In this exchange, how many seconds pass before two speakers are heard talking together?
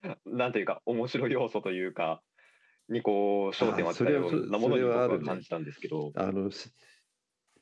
4 s

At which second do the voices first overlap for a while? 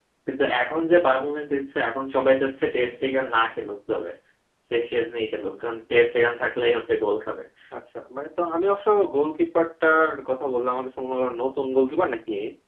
none

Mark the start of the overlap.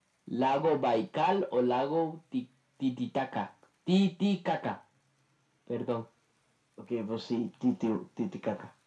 none

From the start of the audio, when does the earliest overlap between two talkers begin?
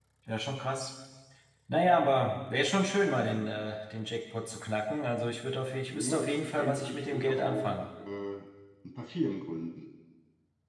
6 s

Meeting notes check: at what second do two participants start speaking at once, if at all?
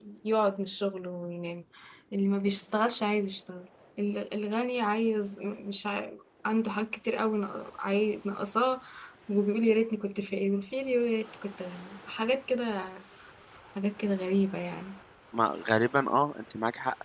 none

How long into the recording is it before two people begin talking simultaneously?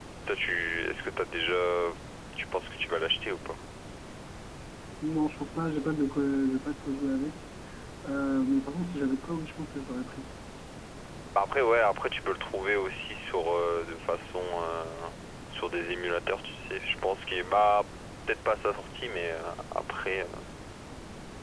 none

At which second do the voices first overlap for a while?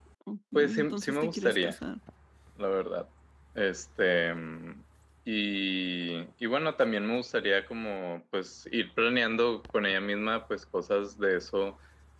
1 s

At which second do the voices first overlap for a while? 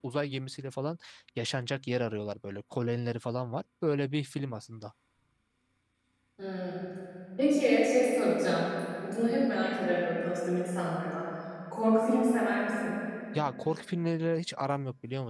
none

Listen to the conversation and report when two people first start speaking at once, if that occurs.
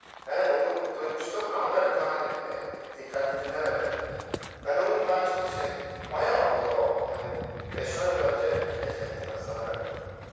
none

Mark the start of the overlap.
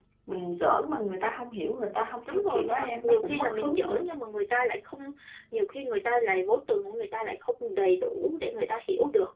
2 s

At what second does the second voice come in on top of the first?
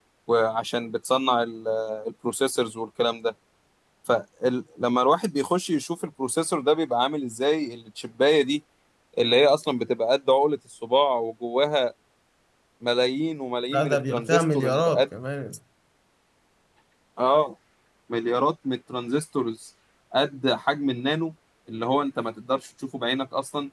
14 s

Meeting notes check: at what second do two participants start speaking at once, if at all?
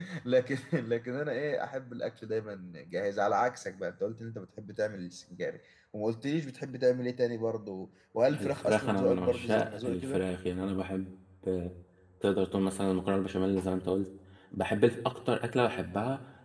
8 s

